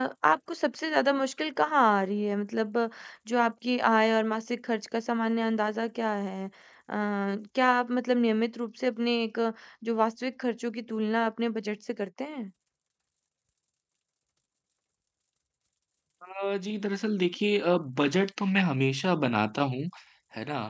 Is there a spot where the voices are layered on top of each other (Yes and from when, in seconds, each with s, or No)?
No